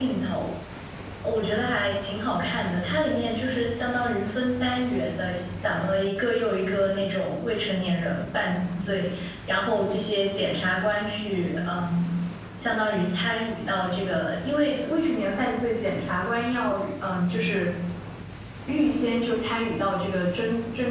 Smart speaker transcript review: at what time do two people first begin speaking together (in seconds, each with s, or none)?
none